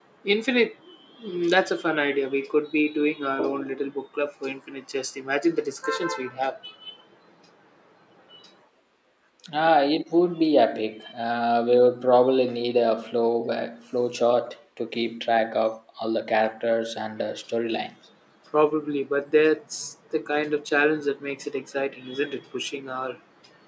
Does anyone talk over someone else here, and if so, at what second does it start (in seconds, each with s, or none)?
none